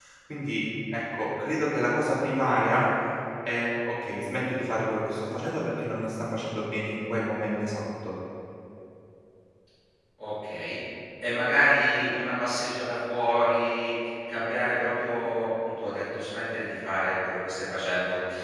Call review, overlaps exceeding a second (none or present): none